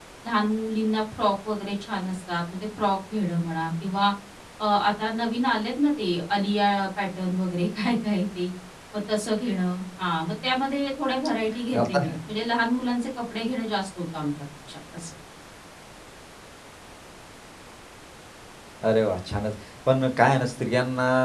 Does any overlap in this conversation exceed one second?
No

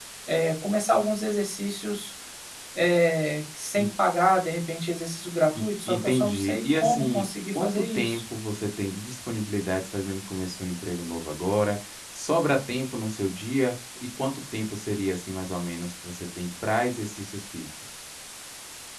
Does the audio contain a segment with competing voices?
Yes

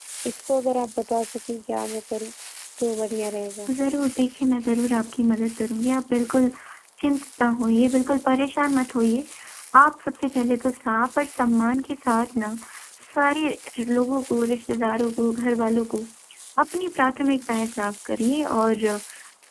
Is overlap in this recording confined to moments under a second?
Yes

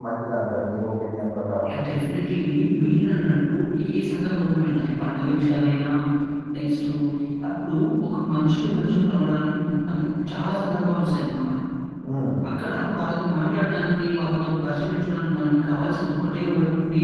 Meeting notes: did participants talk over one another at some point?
No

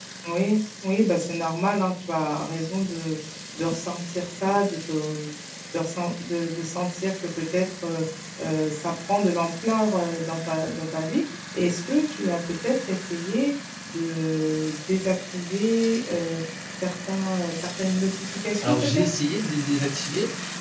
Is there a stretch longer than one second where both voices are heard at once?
No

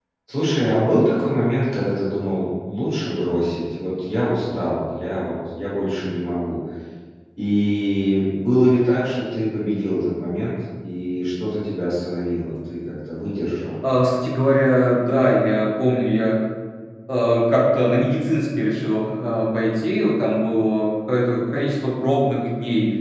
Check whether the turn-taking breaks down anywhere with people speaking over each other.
No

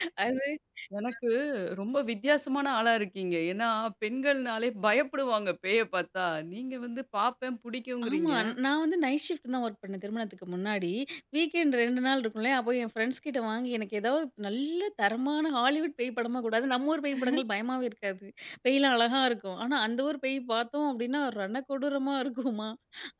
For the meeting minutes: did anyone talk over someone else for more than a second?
No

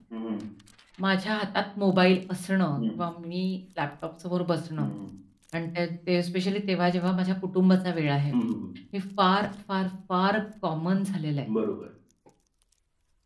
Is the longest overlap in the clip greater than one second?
No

